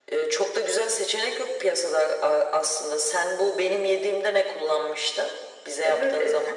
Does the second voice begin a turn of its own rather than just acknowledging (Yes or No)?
Yes